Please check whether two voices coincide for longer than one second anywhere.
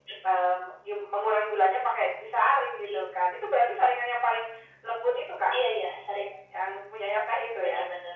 No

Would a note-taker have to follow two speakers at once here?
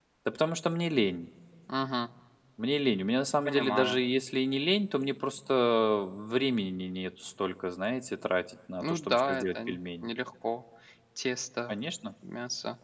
Yes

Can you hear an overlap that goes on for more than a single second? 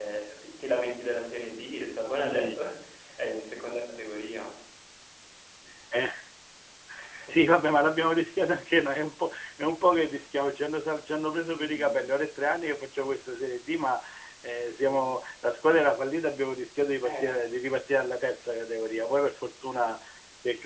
No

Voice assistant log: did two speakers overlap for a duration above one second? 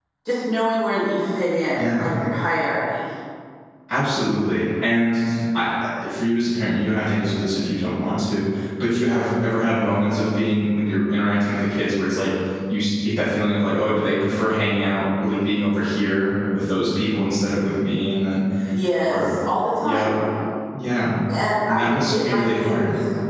Yes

